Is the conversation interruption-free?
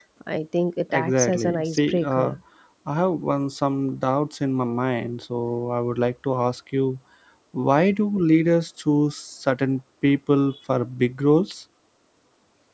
No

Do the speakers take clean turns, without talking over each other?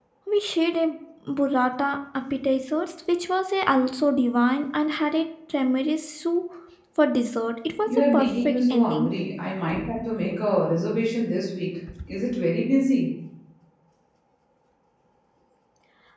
No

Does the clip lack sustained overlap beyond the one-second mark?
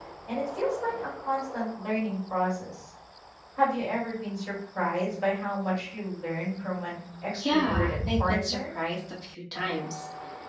No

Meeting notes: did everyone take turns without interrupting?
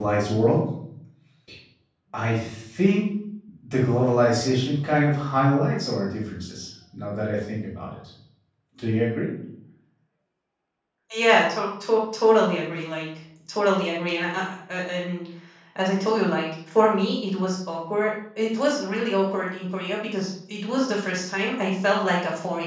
Yes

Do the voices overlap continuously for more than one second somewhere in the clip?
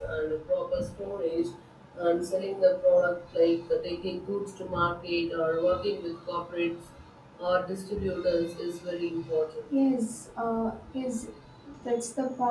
No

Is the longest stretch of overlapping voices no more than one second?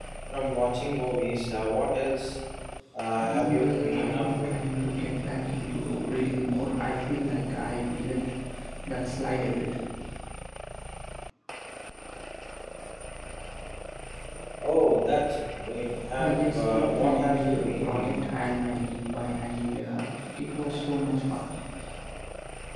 No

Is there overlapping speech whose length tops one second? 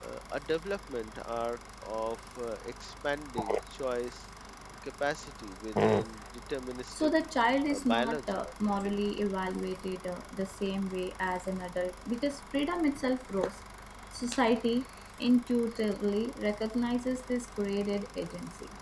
Yes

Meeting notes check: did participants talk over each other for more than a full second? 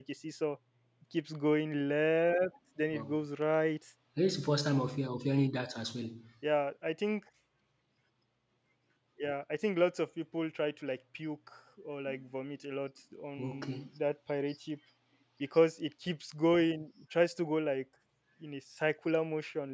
No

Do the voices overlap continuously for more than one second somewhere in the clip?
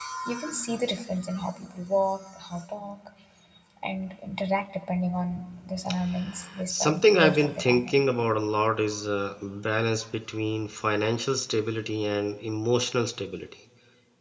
Yes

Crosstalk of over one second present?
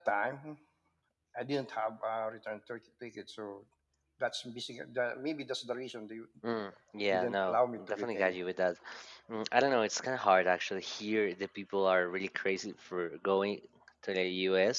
Yes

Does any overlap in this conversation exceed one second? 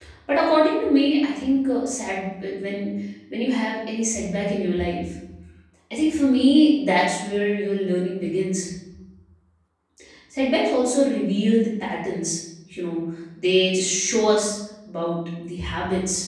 No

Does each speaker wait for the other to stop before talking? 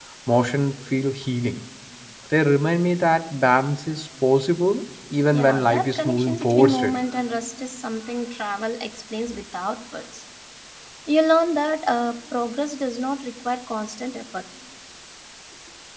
No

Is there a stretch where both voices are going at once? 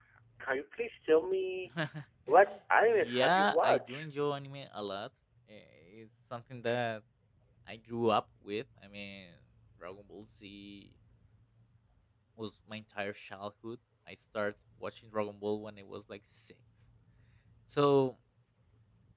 Yes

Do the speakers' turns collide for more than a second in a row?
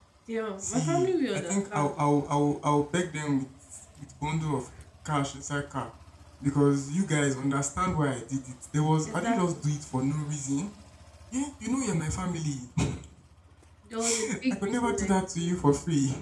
Yes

